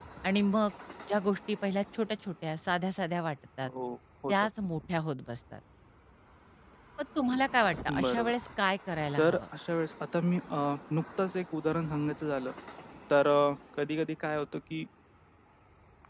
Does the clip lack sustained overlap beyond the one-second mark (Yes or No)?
Yes